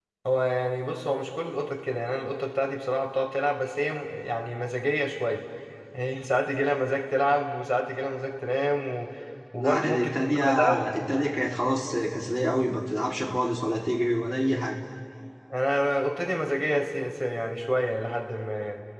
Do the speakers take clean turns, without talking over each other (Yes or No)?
No